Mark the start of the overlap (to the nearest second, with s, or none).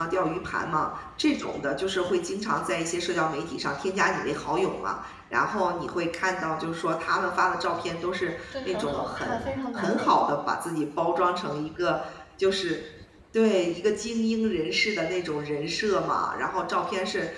9 s